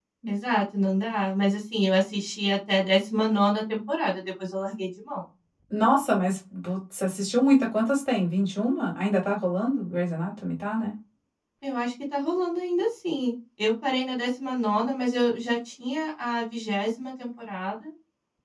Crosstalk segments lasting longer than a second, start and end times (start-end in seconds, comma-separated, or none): none